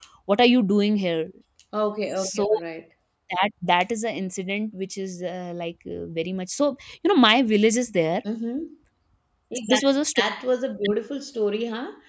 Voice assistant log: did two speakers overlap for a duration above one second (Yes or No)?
No